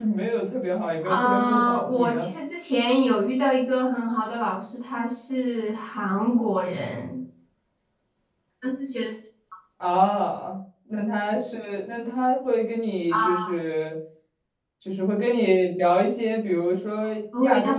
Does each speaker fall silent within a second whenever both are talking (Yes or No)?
No